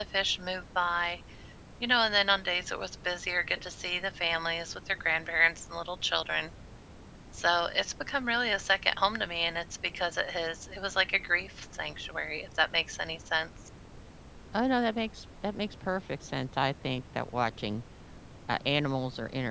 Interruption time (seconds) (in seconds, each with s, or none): none